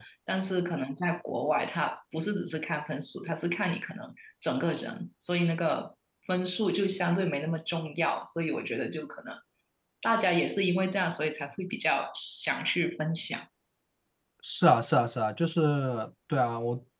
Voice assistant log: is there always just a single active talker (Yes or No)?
Yes